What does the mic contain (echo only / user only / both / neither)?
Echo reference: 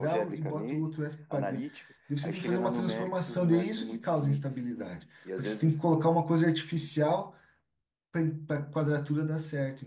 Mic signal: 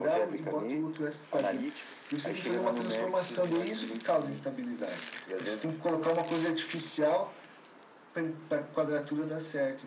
echo only